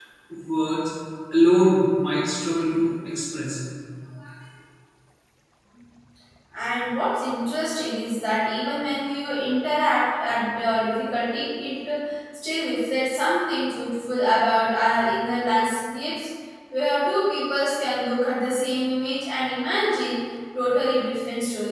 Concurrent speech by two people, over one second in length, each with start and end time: none

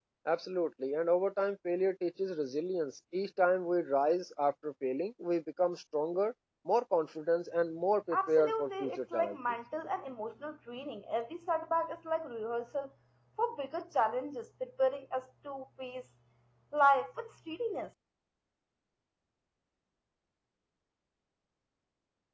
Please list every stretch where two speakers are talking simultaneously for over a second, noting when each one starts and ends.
8.1-9.3

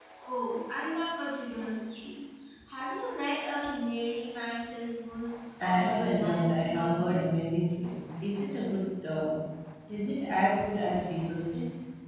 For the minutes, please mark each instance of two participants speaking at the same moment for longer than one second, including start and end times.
5.6-7.2

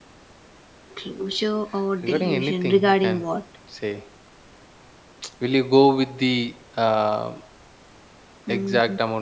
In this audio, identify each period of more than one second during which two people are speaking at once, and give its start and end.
2.0-3.2

